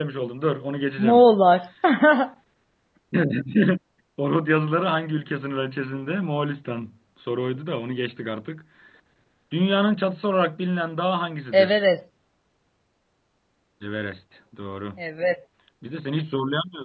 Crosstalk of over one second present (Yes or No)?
No